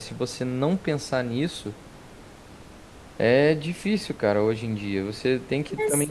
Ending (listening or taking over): listening